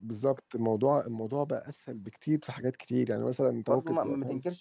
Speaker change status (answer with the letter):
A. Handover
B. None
A